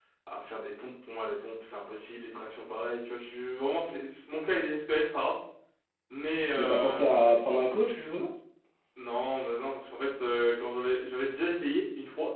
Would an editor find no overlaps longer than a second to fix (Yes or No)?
Yes